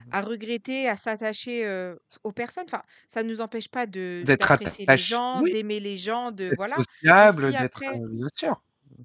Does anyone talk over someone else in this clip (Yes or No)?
Yes